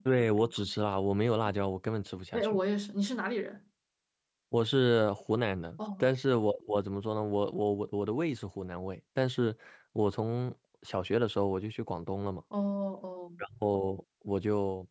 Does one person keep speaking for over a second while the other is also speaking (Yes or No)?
No